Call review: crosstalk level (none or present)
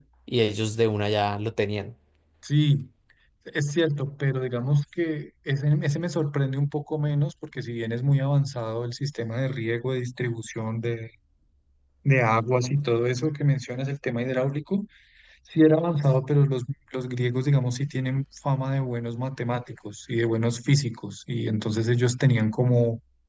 none